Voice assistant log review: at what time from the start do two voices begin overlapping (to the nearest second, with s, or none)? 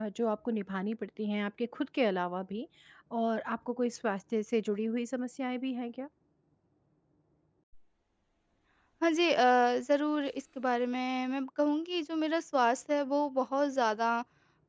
none